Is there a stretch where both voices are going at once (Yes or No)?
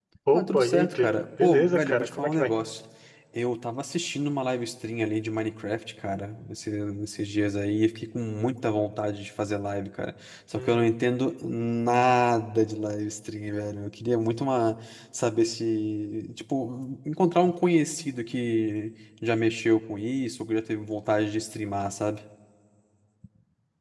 Yes